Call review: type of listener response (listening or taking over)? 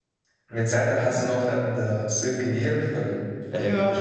listening